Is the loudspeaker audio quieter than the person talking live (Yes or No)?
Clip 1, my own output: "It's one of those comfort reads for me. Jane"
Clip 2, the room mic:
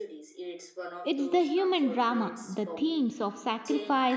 Yes